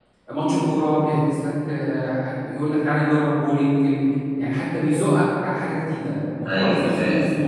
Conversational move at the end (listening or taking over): listening